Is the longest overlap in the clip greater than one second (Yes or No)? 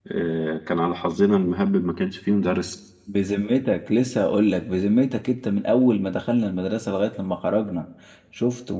No